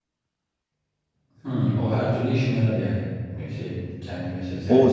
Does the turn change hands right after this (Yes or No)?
Yes